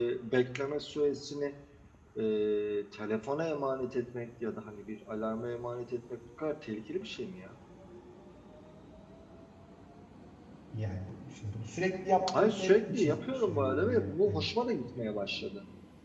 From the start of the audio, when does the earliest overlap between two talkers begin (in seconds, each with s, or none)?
12.3 s